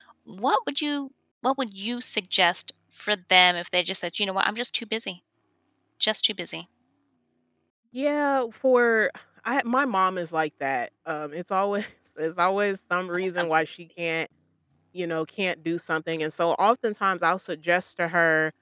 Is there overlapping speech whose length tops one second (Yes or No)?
No